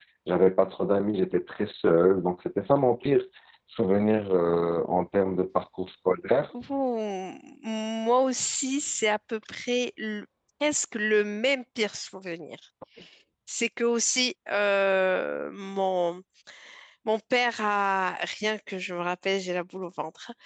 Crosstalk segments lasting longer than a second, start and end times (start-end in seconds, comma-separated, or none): none